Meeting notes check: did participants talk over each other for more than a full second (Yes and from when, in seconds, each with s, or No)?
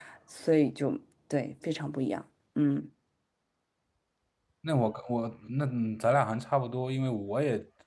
No